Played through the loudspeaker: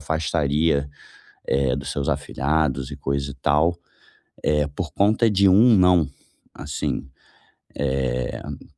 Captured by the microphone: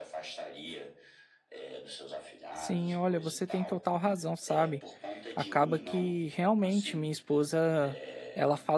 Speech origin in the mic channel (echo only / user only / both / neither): both